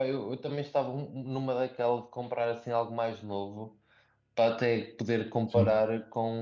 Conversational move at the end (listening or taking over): listening